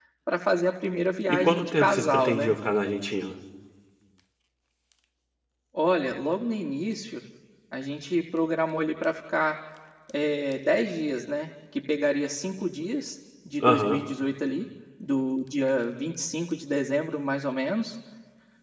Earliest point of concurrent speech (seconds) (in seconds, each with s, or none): 1.3 s